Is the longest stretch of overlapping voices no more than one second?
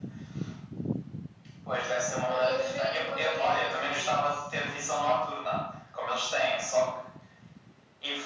No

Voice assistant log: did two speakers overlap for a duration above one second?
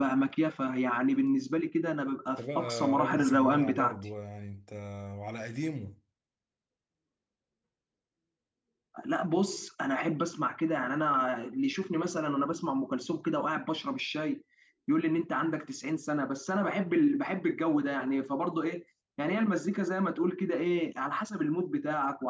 Yes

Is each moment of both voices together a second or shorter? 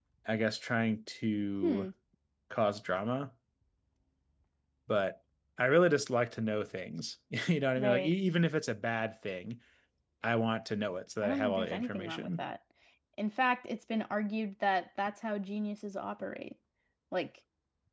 No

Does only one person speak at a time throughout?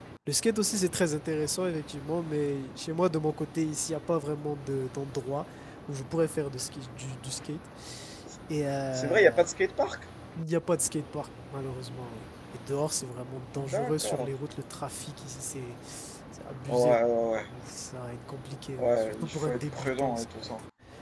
No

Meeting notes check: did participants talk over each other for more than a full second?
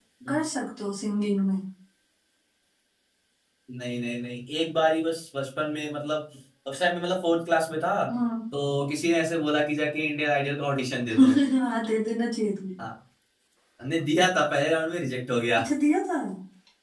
No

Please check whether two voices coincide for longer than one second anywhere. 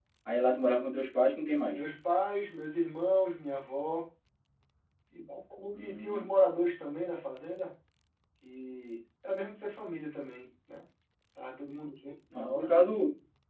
No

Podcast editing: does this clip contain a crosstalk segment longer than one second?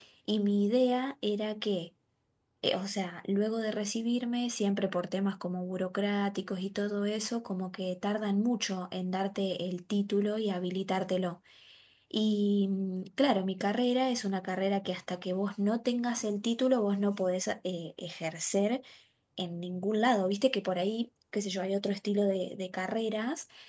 No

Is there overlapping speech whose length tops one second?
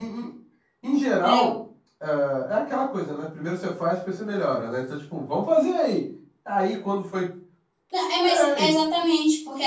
No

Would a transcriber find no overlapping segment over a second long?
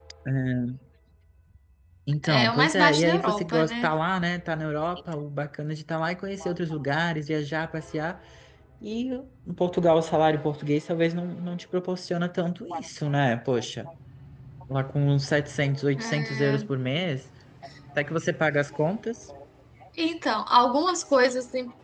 No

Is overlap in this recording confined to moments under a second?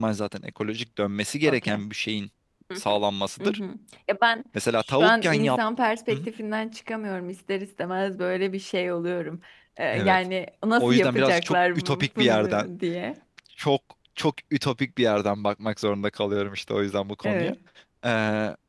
No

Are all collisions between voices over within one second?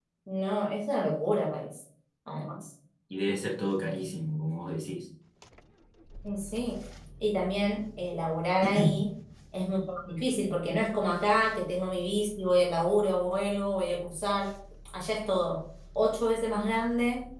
Yes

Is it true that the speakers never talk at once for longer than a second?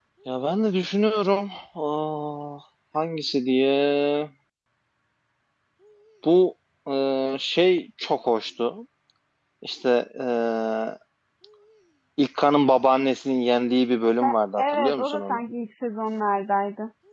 No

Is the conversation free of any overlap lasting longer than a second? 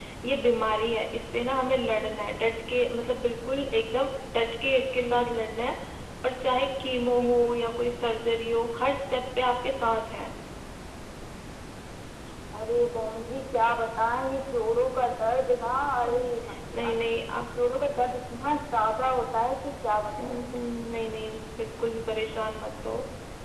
Yes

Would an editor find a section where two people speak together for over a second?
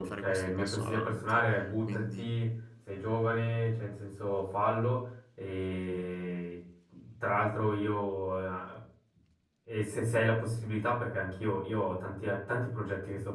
Yes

